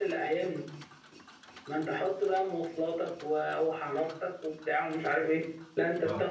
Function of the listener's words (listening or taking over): listening